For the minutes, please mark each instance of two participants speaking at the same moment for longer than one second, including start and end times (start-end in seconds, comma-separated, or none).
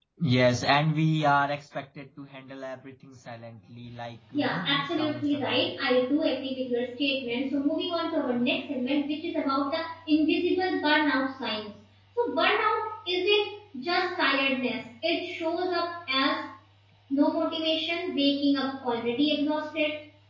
4.3-5.7